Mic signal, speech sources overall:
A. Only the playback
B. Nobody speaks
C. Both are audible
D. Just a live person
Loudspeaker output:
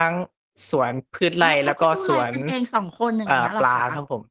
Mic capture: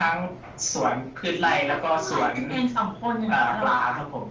A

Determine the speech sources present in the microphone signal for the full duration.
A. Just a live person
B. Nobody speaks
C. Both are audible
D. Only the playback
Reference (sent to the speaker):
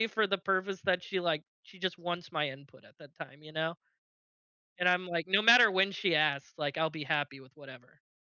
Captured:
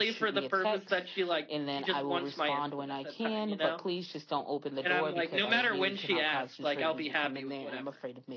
C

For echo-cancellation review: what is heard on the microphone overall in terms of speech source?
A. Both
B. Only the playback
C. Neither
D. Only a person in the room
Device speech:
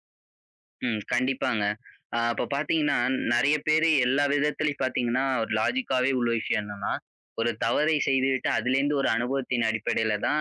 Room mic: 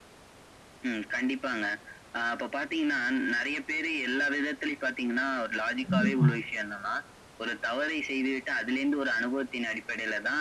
A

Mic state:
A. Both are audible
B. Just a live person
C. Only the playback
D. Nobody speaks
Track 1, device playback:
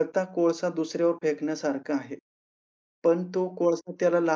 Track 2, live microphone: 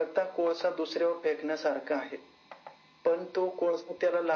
C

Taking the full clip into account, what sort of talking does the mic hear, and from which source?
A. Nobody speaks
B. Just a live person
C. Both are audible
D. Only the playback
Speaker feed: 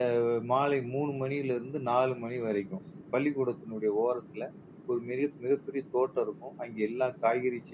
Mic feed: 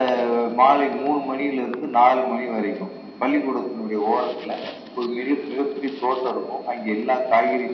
D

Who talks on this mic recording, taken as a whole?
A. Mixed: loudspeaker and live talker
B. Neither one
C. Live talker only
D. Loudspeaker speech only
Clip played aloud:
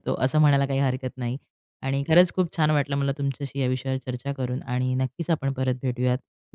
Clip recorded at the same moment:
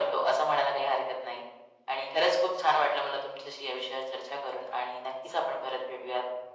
D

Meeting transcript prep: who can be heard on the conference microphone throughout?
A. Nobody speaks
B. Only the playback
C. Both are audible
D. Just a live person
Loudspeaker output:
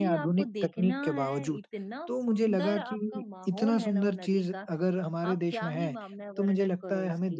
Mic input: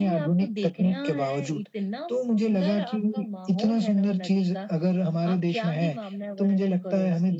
B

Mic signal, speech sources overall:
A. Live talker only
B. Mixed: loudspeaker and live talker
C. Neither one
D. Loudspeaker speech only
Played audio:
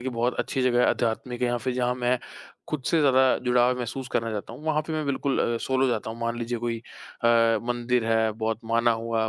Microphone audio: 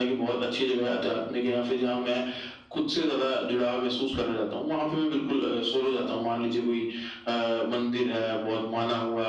D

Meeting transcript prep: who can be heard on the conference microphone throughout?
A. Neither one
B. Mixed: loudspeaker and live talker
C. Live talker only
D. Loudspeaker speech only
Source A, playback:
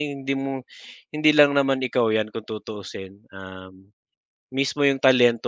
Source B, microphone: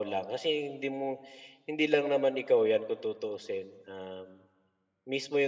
D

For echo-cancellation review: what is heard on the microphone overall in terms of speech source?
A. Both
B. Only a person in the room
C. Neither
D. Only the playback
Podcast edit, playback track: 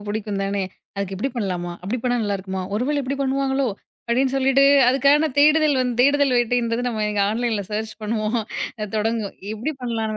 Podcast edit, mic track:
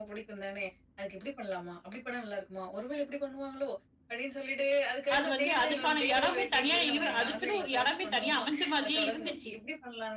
A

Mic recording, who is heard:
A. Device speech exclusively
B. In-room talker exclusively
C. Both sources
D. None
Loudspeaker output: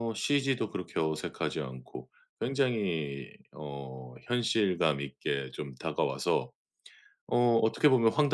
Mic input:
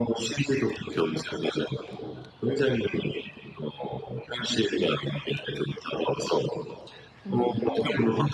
C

